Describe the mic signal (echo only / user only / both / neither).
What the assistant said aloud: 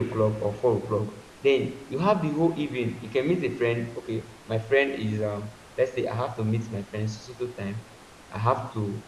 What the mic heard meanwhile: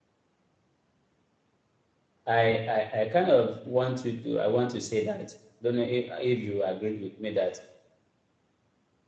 user only